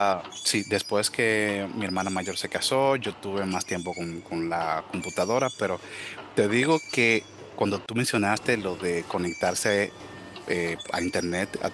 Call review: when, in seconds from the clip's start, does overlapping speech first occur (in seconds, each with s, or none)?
none